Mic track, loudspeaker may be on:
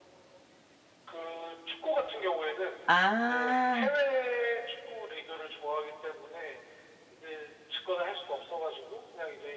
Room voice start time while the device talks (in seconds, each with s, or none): 2.9 s